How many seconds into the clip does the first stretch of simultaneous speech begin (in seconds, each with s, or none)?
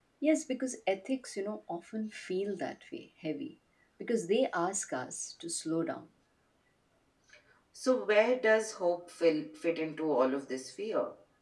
none